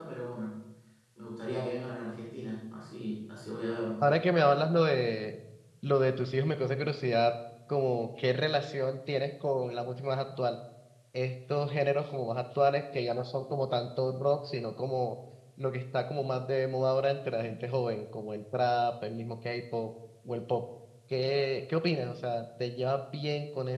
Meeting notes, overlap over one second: none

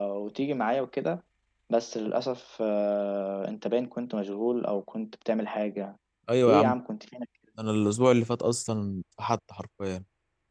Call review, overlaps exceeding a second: none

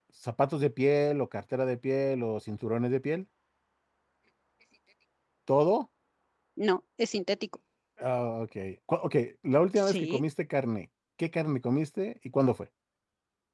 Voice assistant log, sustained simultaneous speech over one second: none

